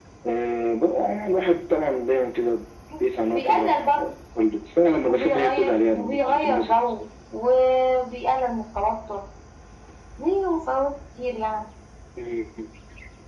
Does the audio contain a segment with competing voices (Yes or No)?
Yes